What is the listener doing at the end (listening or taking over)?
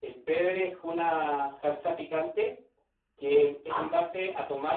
listening